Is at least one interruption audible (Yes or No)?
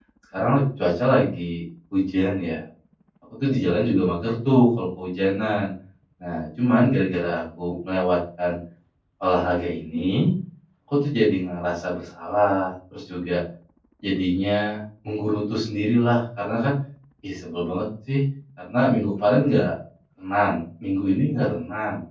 No